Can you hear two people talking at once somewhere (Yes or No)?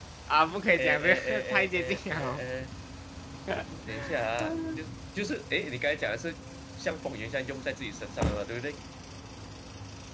Yes